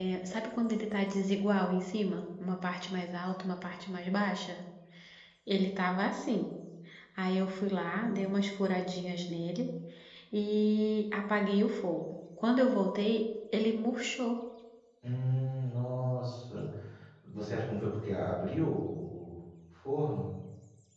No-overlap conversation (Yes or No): Yes